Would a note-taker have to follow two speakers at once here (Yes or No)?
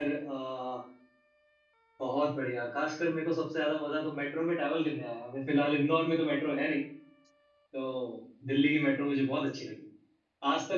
No